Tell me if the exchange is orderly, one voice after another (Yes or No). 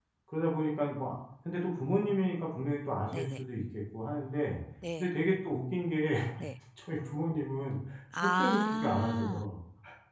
No